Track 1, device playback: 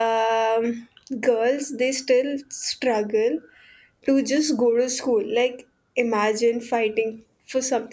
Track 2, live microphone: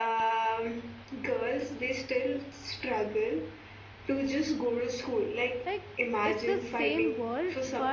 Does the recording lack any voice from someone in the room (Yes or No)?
No